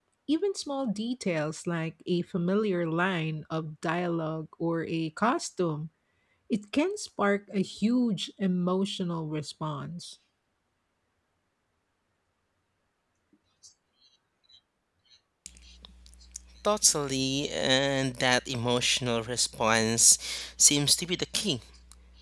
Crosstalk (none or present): none